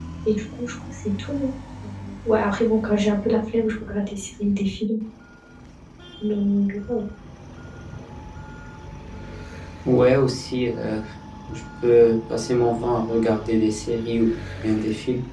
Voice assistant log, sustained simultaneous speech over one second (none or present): none